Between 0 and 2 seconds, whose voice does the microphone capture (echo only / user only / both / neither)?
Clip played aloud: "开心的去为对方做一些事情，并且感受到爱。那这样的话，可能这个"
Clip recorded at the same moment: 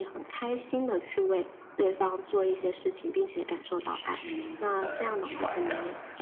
echo only